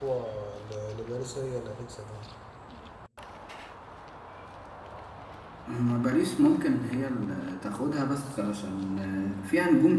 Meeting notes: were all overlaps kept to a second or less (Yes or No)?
Yes